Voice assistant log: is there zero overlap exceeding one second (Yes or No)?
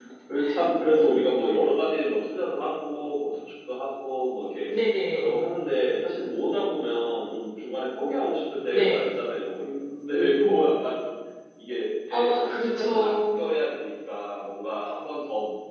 No